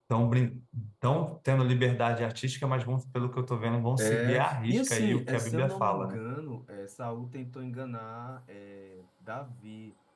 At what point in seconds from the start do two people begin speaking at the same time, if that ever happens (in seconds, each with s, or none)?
4.0 s